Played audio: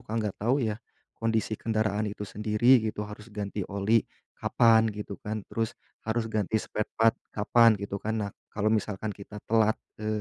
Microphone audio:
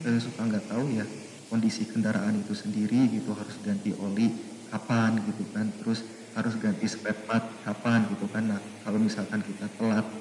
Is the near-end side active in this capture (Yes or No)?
No